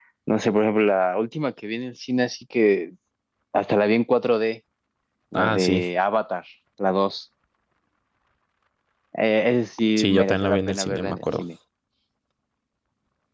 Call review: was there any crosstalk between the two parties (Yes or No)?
Yes